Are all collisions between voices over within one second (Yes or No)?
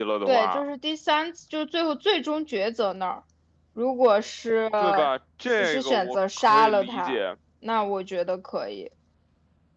No